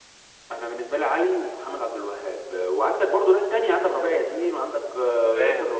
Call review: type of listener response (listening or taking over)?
taking over